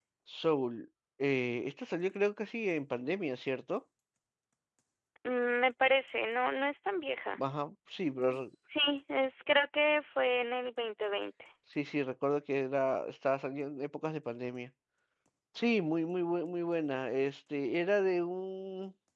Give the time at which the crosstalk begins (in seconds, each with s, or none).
none